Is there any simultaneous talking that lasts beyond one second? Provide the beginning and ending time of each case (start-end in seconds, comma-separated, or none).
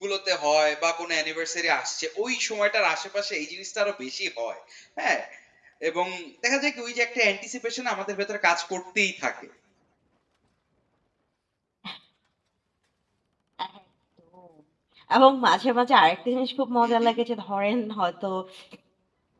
none